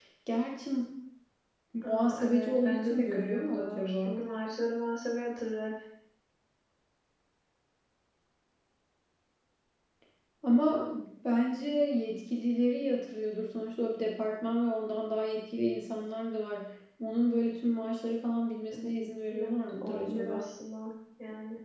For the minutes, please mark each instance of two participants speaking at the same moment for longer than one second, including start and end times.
1.8-4.2, 18.7-20.4

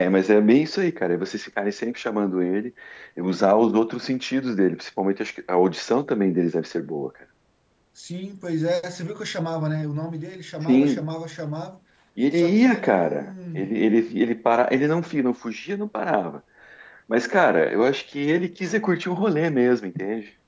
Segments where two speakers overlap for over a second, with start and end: 12.3-13.6

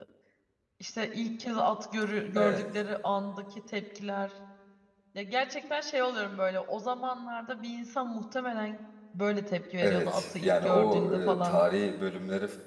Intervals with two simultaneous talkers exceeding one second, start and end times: 9.8-11.6

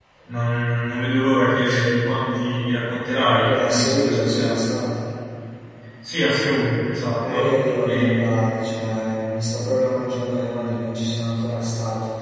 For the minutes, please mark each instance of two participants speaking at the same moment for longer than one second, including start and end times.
3.4-4.6

